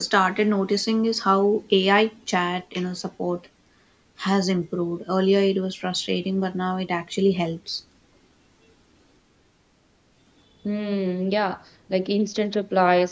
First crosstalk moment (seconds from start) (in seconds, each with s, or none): none